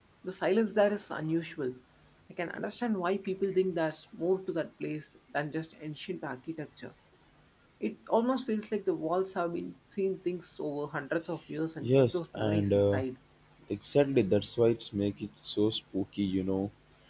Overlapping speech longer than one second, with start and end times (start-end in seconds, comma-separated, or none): 11.8-13.0